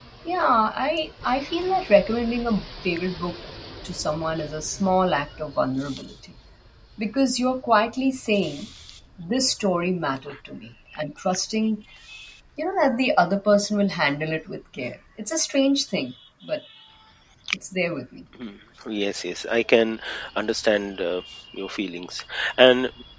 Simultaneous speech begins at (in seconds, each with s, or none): none